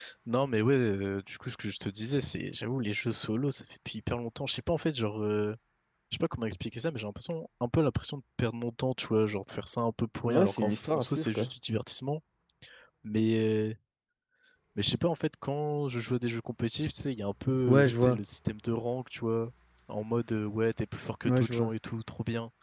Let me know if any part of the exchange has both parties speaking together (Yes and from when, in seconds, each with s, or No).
Yes, from 10.3 s